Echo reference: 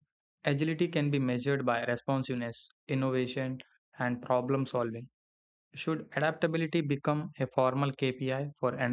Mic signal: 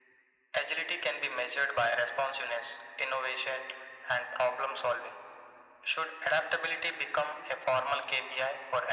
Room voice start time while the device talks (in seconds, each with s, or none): none